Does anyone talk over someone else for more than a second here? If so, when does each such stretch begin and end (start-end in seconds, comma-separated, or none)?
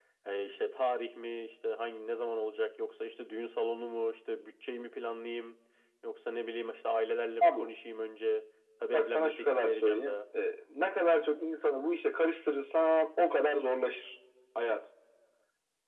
8.9-10.1